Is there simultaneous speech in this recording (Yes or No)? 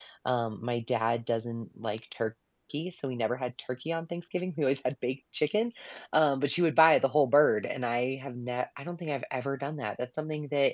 No